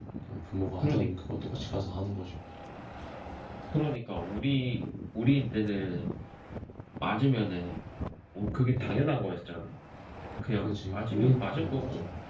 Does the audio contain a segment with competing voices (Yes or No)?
Yes